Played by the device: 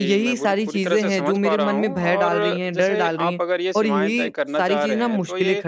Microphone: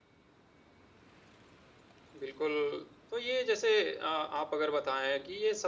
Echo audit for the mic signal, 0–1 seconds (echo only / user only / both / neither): neither